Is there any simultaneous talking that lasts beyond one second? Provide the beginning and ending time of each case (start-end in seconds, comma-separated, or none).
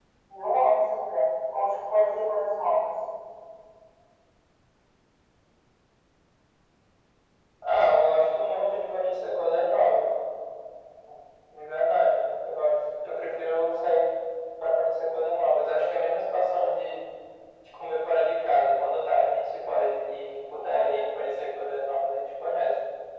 none